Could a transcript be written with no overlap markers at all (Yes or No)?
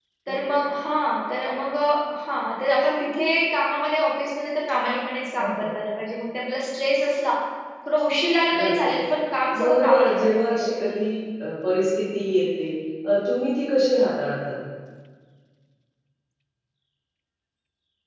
No